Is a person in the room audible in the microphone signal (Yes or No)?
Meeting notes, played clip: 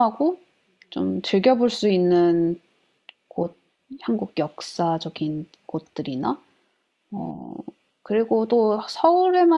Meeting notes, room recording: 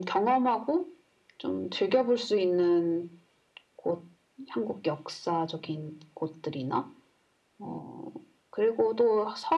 No